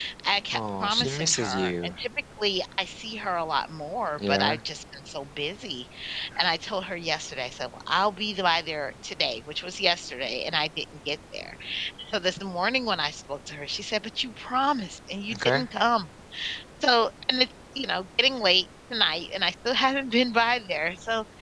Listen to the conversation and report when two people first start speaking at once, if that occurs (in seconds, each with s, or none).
0.5 s